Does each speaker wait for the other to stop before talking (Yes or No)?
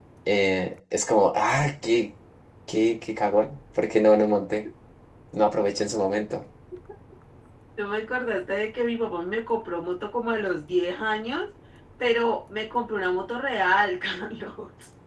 Yes